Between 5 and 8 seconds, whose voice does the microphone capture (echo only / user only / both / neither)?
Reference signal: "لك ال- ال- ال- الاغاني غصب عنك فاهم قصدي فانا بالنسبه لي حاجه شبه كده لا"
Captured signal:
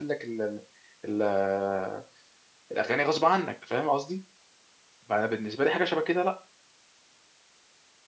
echo only